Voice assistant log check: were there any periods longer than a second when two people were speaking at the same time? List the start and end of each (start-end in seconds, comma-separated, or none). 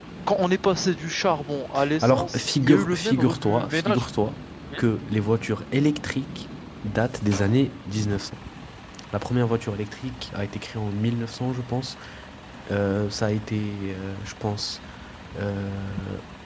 2.0-4.0